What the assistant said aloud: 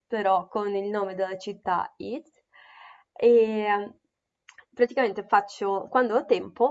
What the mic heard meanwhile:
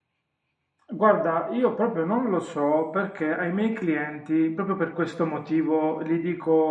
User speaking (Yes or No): Yes